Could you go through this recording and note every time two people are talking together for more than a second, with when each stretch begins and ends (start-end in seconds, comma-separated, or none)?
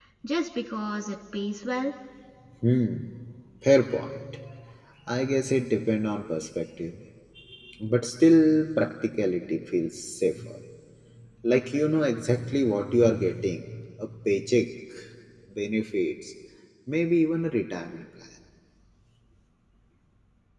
none